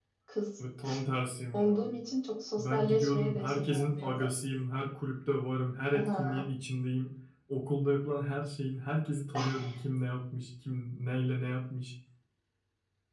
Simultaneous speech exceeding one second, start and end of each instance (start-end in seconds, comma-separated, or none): 2.6-4.3